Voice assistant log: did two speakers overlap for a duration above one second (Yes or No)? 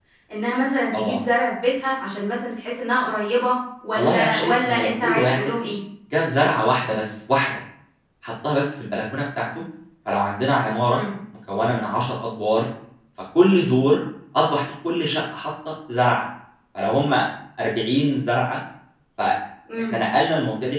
Yes